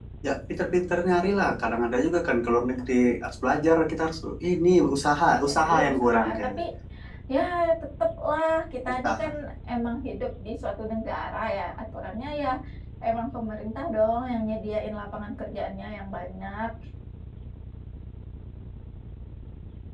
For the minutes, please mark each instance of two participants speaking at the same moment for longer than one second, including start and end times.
5.3-6.6

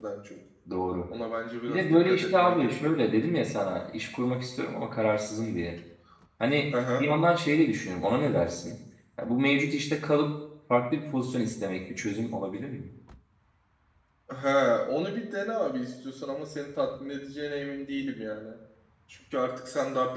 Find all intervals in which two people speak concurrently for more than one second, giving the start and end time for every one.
1.7-2.9

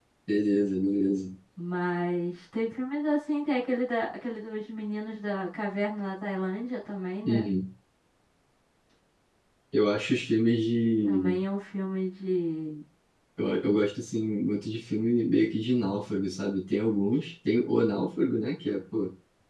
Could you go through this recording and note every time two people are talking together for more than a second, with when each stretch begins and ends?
none

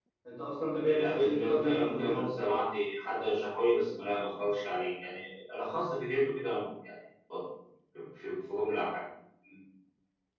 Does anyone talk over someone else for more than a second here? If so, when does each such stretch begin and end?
0.8-2.2

